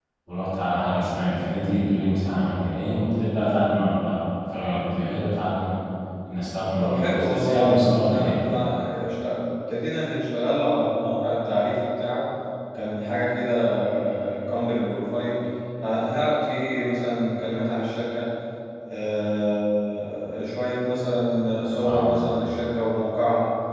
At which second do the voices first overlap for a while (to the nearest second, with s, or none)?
7 s